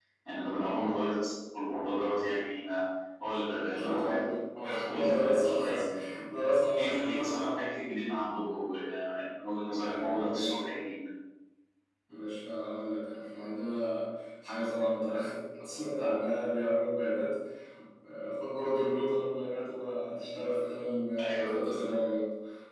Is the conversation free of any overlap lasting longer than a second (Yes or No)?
No